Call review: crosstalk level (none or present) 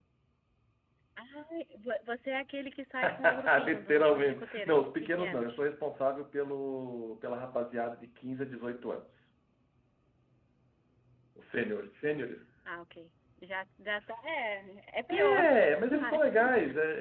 present